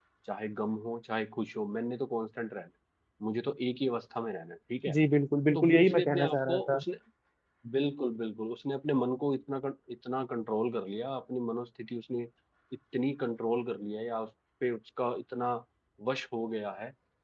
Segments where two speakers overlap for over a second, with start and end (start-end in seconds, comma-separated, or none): 5.5-6.8